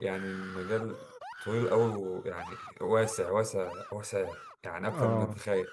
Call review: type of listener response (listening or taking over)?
taking over